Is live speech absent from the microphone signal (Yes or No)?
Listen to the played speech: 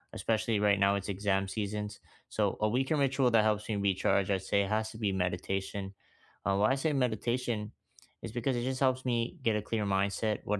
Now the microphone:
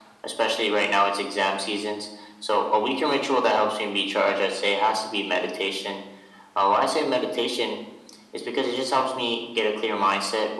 Yes